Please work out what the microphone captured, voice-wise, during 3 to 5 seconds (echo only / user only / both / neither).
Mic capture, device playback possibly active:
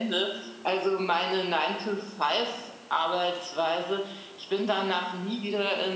echo only